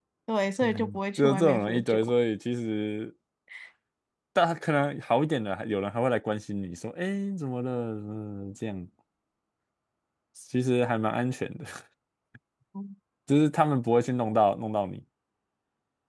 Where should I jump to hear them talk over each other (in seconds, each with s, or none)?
0.6 s